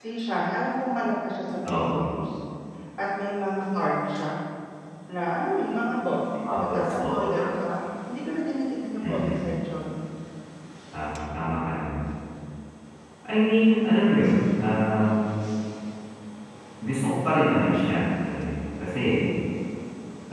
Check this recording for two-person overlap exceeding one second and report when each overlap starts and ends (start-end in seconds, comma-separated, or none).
6.5-7.7